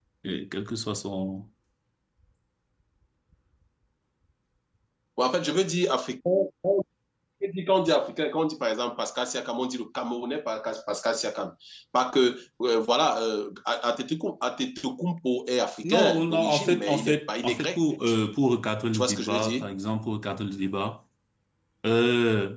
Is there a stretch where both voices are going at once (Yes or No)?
Yes